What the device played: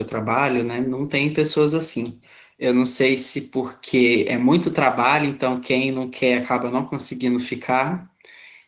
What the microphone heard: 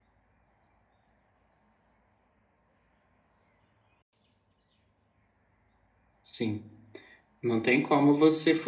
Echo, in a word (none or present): none